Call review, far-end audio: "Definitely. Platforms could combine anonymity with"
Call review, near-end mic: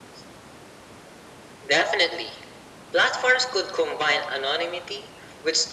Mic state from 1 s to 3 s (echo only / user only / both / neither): echo only